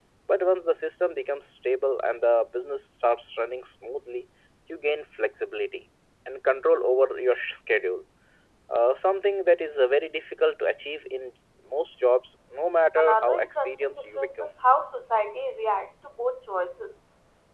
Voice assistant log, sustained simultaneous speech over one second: present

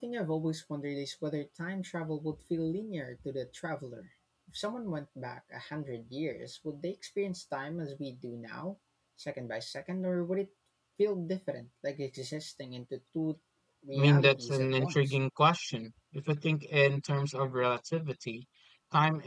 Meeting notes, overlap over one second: present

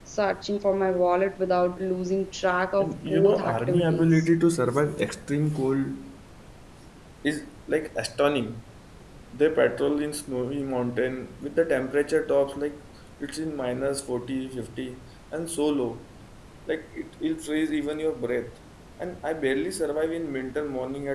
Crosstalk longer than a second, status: present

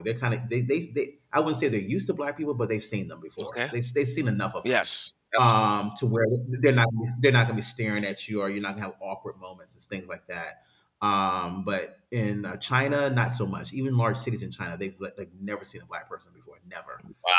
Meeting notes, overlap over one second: none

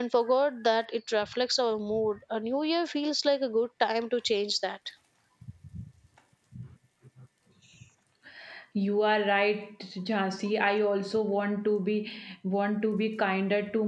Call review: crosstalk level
none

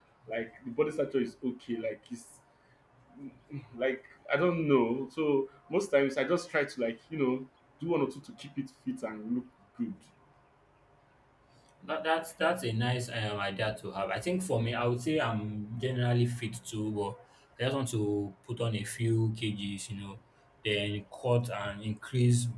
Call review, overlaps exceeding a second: none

